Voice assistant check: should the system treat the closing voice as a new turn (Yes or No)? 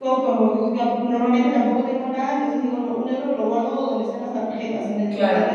No